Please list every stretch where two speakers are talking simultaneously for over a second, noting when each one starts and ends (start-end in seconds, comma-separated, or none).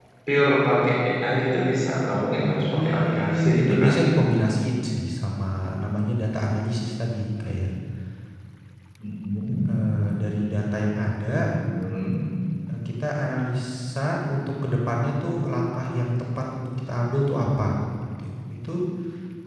2.7-3.9